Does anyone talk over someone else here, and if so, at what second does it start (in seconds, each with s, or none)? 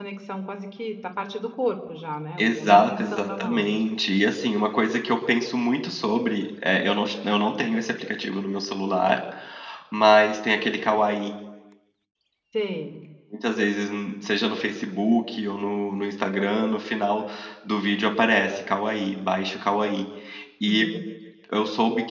2.4 s